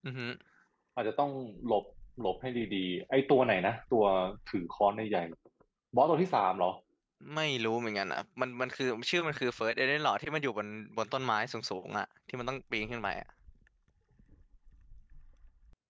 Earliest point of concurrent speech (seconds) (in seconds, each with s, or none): none